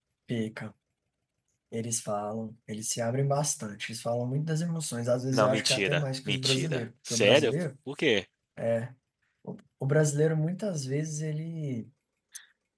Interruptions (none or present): present